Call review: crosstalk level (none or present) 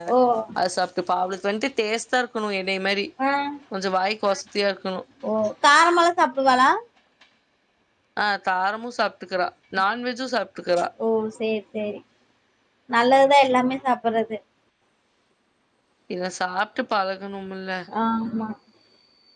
none